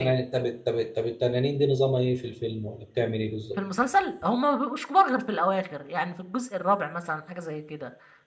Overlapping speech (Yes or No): No